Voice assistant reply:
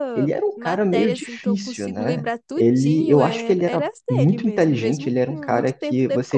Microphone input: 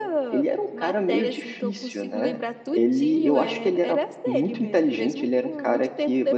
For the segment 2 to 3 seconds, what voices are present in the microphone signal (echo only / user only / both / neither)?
echo only